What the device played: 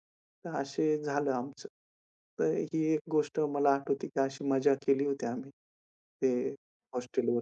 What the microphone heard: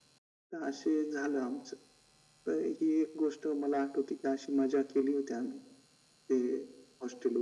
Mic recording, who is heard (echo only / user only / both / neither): echo only